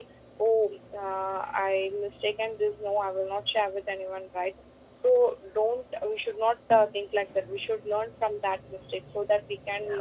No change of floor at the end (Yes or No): Yes